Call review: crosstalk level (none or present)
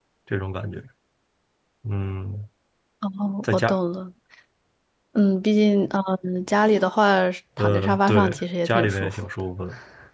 present